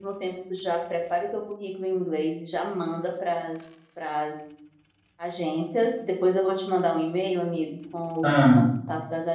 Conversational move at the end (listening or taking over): listening